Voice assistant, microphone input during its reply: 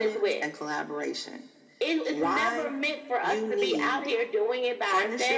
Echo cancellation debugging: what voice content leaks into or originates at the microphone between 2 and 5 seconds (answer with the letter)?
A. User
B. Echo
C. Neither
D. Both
B